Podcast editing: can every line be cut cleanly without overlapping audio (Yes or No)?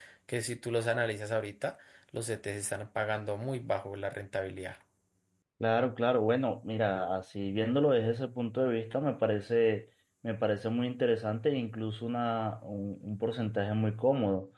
Yes